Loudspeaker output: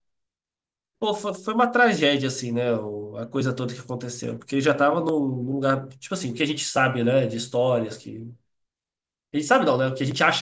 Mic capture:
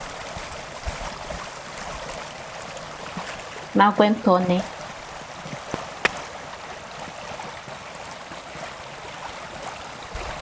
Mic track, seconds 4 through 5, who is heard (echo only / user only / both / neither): user only